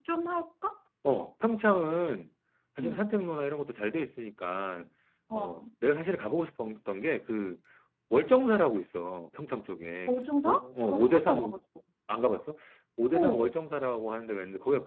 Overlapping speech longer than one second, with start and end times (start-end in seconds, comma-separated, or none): 10.1-11.6